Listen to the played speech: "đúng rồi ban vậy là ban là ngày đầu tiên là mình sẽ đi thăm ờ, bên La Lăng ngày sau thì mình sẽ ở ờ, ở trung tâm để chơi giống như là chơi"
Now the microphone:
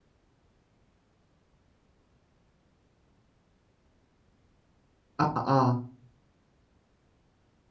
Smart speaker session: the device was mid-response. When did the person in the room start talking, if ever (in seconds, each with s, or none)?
5.2 s